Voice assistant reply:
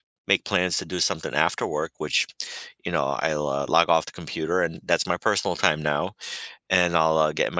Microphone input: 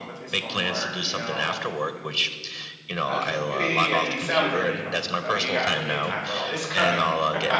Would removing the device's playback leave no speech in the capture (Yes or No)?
No